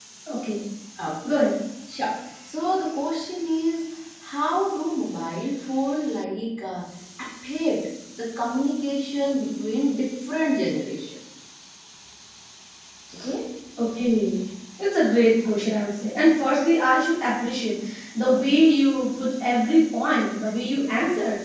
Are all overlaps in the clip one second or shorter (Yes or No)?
Yes